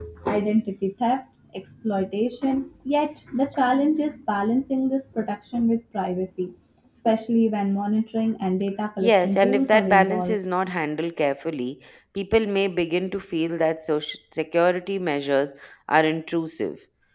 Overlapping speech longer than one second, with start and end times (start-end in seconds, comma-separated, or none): 9.0-10.4